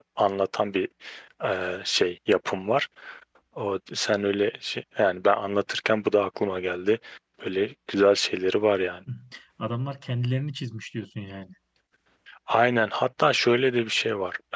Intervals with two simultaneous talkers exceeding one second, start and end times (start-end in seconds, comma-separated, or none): none